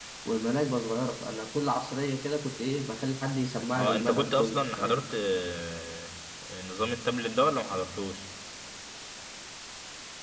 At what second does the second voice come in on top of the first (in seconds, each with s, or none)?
3.8 s